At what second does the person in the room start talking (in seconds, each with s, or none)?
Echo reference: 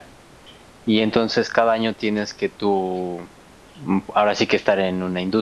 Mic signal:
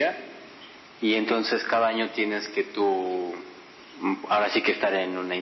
none